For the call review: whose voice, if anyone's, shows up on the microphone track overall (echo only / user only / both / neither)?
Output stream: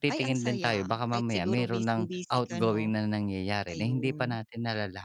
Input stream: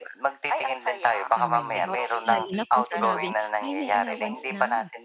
both